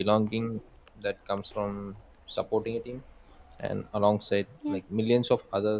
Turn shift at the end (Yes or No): No